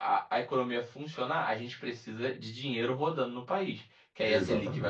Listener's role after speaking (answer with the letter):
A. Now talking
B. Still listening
B